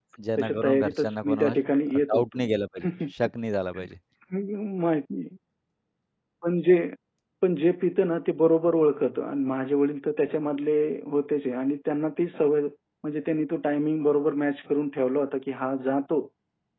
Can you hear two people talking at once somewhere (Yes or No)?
Yes